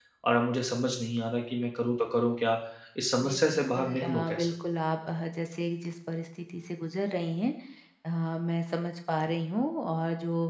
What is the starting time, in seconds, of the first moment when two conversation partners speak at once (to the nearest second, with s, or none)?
3 s